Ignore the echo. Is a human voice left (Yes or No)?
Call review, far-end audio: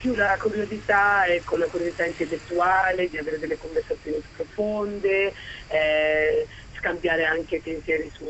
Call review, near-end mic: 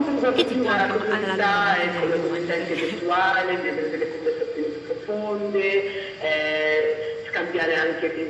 Yes